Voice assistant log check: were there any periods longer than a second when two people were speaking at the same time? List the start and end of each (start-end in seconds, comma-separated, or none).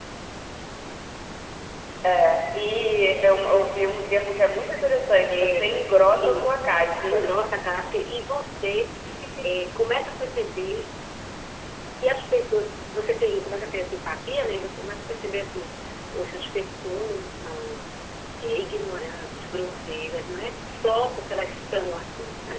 5.3-7.2